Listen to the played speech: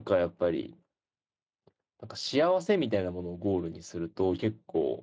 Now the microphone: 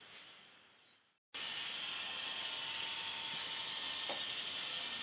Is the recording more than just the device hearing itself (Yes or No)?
No